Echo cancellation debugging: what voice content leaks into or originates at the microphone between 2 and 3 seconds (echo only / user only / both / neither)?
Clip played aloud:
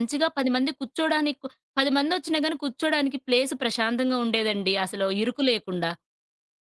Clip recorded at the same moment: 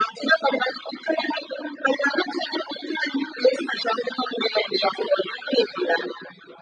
echo only